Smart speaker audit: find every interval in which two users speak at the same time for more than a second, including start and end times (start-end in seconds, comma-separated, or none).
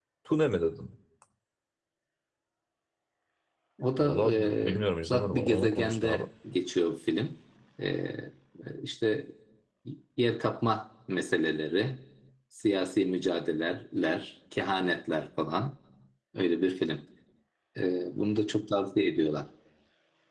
4.0-6.2